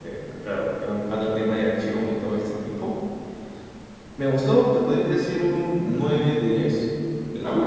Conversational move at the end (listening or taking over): listening